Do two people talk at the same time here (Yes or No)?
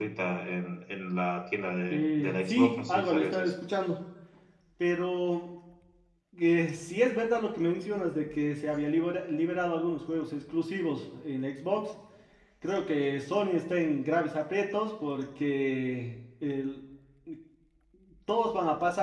Yes